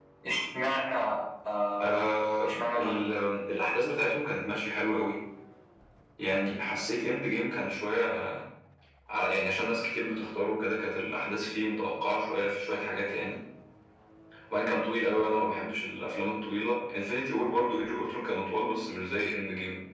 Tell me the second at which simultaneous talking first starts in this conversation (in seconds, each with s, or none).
1.8 s